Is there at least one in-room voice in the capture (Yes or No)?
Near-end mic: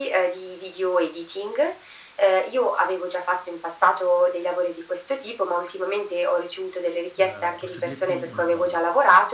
Yes